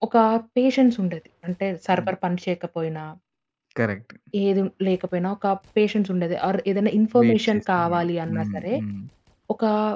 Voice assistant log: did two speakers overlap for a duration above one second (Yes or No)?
Yes